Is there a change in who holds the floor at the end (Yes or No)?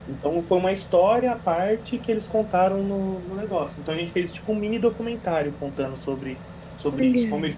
No